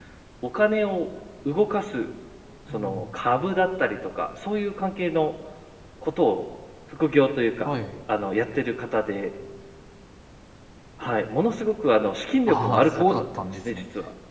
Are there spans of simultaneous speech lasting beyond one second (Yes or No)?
Yes